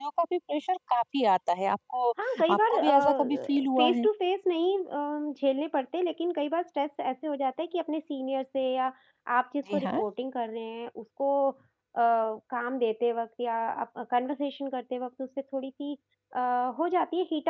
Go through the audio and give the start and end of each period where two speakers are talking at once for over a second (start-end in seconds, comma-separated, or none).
2.5-4.0